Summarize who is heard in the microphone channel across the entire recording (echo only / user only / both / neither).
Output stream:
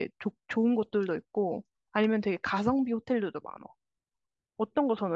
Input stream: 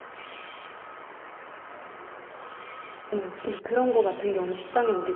user only